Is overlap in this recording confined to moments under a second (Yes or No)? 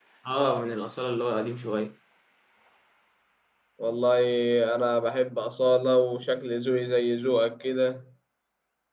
Yes